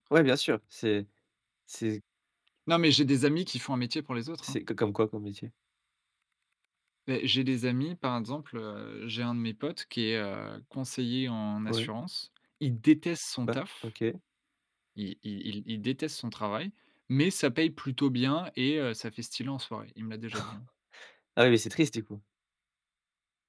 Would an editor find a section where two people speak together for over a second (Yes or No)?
No